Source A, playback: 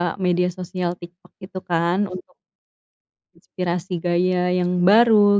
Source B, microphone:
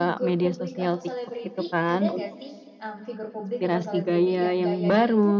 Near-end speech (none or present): present